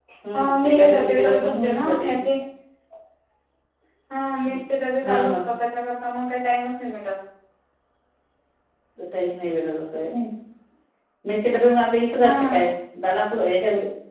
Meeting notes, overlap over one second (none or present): present